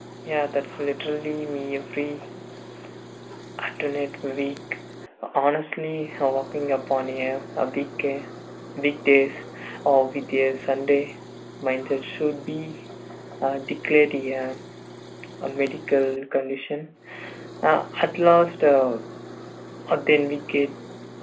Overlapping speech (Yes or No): No